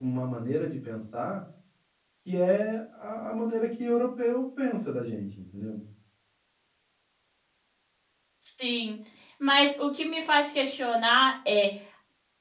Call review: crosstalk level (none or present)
none